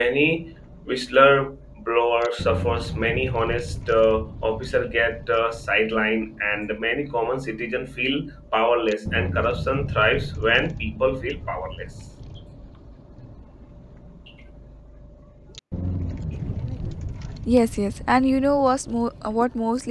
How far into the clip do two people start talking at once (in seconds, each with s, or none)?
none